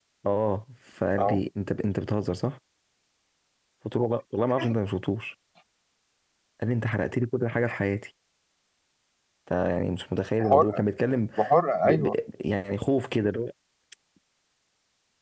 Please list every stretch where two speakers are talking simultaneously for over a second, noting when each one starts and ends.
none

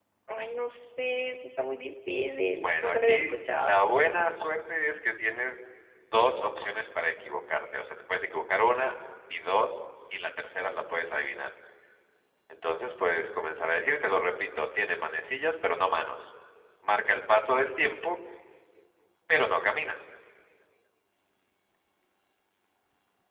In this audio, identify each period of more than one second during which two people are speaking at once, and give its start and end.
2.6-3.8

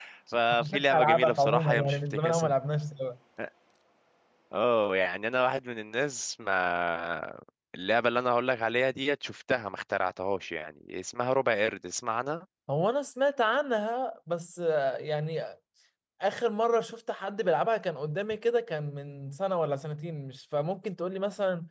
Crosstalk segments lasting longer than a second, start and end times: 0.5-2.5

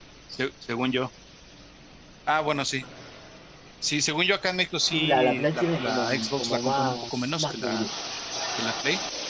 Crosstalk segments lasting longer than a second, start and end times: 4.9-7.9

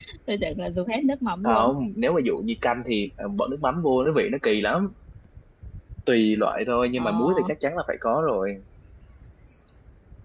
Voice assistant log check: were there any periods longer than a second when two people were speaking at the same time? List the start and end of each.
none

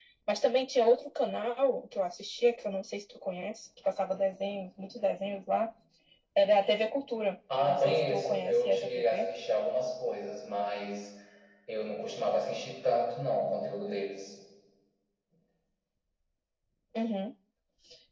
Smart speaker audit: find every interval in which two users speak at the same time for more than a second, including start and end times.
7.7-9.3

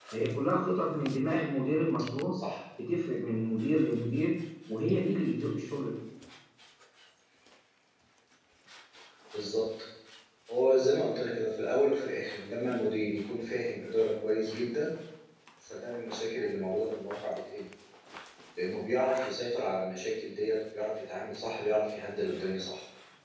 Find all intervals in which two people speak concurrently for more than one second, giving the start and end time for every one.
none

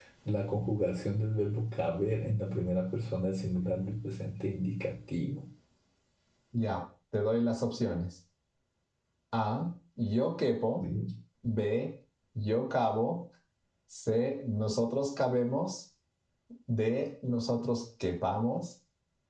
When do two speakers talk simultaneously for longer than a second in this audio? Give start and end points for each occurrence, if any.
none

